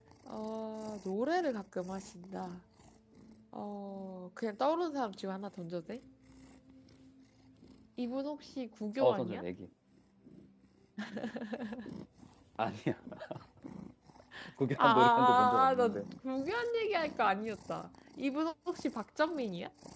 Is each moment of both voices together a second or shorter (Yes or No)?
No